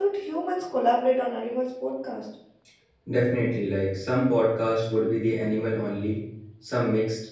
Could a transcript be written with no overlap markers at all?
Yes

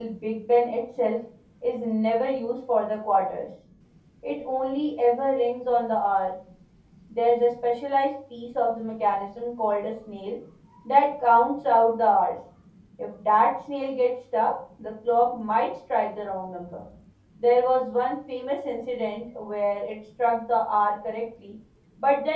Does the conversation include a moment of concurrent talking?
No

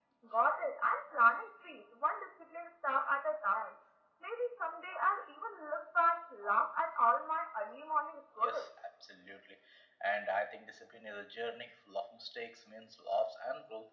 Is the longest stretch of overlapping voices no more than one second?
Yes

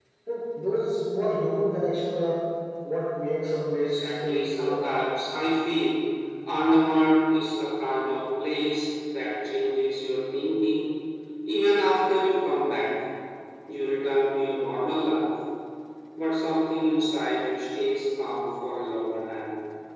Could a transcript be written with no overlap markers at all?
No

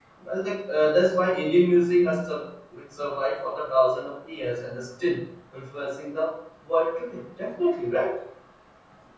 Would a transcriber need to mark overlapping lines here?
No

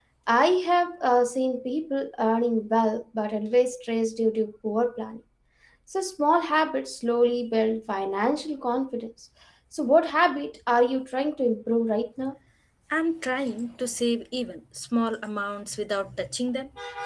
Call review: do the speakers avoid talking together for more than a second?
Yes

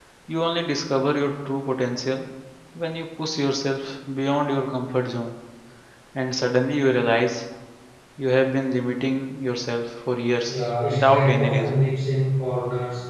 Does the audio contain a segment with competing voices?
Yes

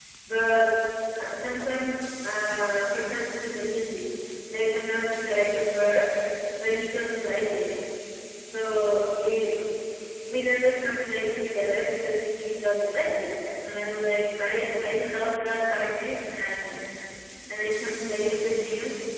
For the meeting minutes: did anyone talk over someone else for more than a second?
No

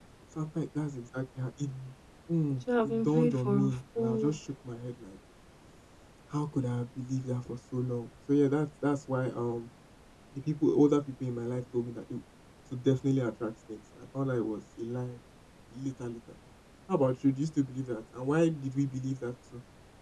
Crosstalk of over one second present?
Yes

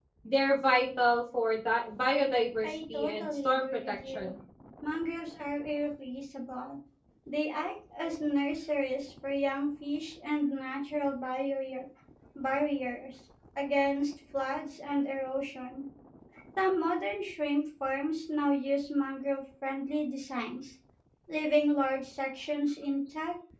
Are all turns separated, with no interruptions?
No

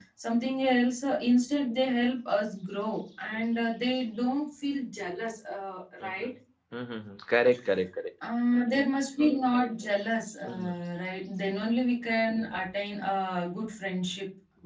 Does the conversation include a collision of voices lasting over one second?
No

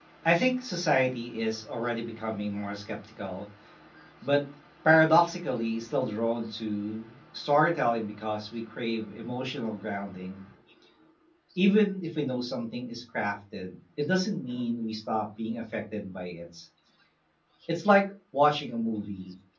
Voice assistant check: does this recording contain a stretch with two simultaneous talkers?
No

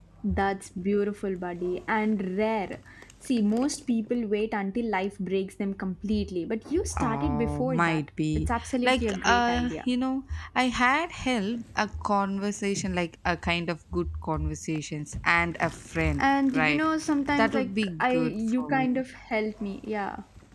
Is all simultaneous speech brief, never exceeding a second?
No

